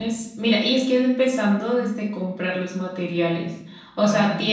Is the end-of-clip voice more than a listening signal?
No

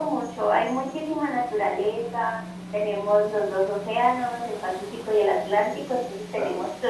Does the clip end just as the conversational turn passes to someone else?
No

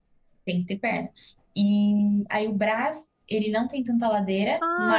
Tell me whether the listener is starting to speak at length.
Yes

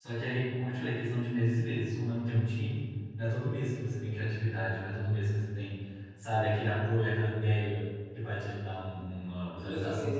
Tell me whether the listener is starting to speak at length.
Yes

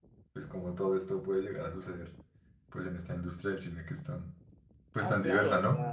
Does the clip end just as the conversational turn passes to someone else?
Yes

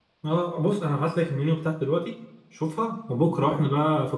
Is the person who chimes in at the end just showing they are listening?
Yes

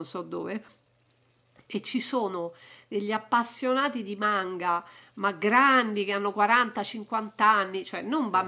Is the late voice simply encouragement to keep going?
Yes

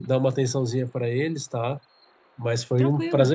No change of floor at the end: Yes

